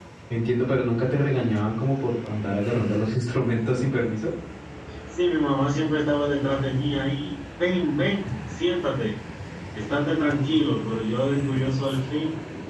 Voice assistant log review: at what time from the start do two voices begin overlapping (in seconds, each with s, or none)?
none